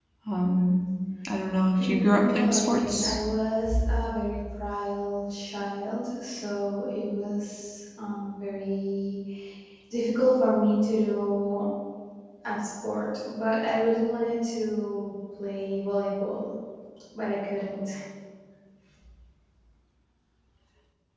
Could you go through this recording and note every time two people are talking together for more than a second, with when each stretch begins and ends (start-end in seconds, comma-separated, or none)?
1.8-3.1